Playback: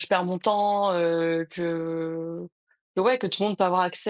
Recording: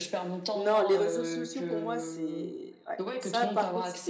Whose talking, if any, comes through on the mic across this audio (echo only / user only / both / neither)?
both